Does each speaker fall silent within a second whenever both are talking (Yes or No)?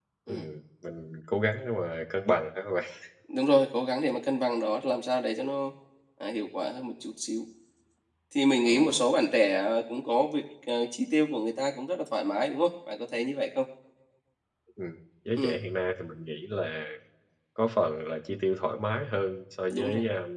Yes